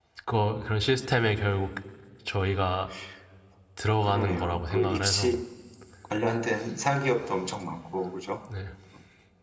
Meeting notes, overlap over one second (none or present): present